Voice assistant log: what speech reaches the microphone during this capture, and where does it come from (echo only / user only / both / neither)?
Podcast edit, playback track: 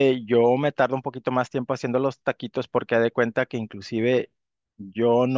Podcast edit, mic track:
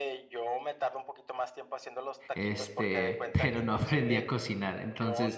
both